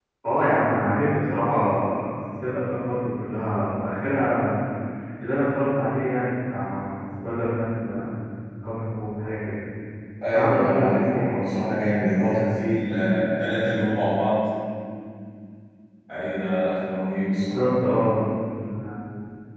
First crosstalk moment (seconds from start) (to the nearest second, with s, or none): 10 s